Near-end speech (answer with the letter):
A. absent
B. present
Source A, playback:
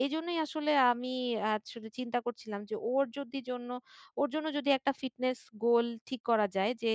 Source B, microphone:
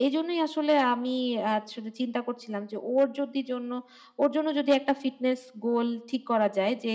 A